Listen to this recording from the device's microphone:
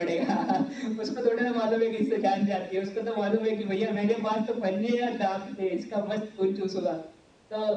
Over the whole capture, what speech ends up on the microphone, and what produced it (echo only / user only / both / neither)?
echo only